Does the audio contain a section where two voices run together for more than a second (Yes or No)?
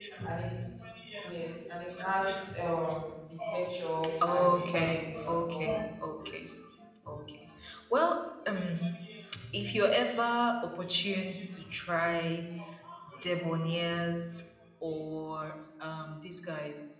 Yes